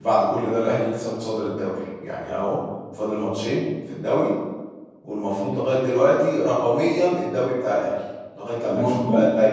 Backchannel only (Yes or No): No